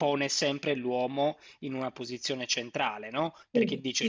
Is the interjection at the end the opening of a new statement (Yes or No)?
No